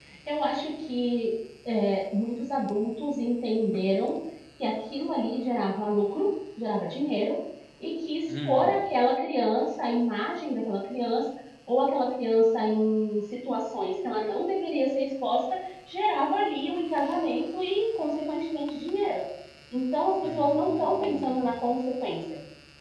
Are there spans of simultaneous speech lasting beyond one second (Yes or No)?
Yes